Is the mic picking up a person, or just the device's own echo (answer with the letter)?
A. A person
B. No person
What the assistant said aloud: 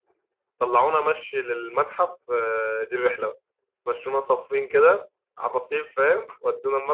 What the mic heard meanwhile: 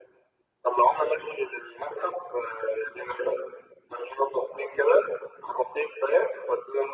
B